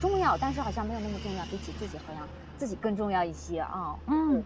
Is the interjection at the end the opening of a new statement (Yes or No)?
Yes